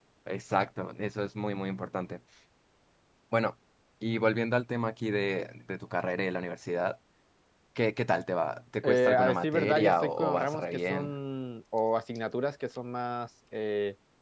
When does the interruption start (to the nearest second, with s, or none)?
9 s